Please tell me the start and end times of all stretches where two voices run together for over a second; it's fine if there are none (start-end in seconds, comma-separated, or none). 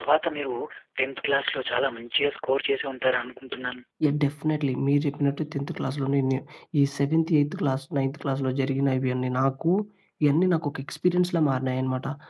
none